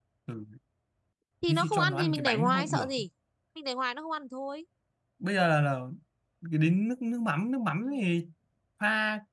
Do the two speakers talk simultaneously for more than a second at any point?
Yes, from 1.5 s

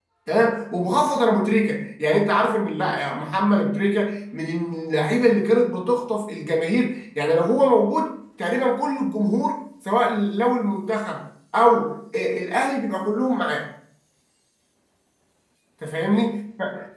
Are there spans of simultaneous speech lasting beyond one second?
No

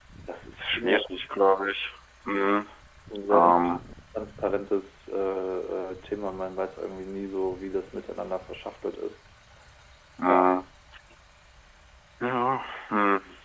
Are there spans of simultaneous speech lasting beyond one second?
No

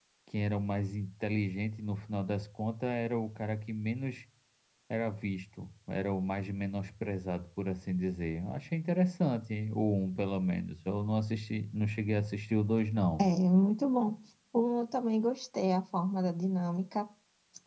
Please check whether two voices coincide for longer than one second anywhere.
No

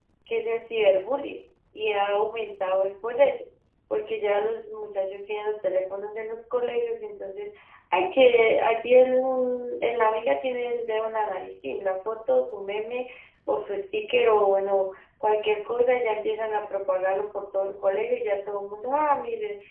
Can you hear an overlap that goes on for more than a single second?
No

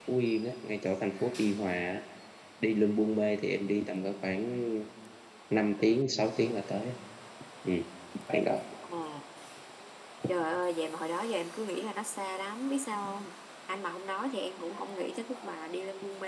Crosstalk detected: No

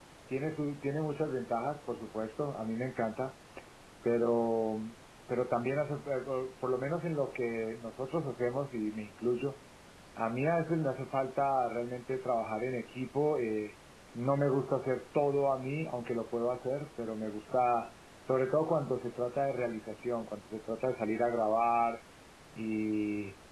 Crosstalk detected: No

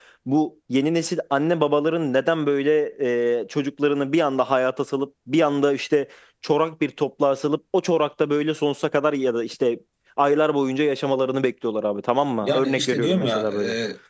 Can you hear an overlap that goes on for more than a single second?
Yes, from 12.4 s

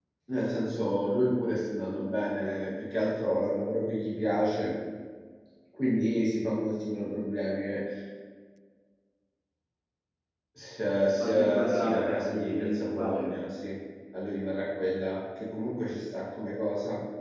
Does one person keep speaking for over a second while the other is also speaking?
Yes, from 11.2 s

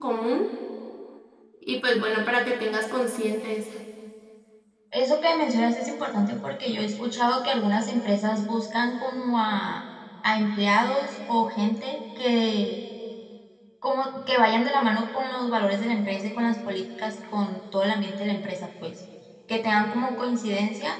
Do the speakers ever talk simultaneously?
No

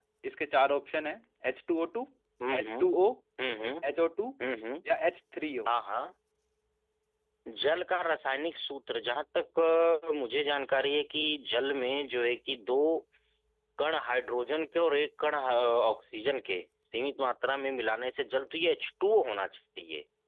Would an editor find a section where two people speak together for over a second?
No

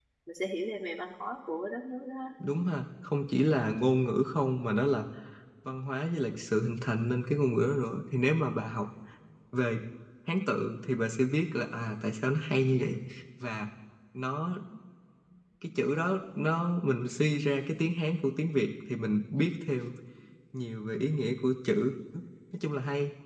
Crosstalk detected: No

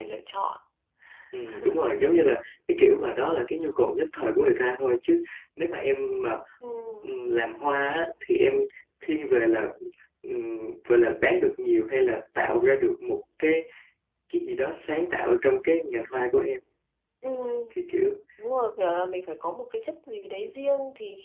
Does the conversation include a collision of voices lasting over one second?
No

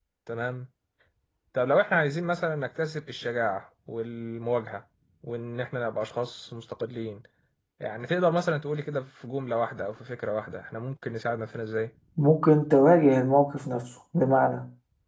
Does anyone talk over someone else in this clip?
No

